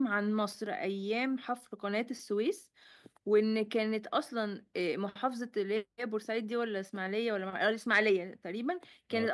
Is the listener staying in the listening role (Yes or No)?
Yes